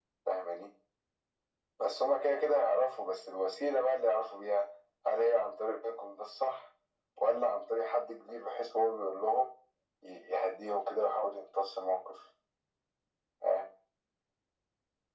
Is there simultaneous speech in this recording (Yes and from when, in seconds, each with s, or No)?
No